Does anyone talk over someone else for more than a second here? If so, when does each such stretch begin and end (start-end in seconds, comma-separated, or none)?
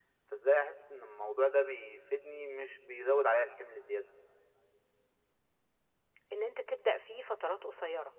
none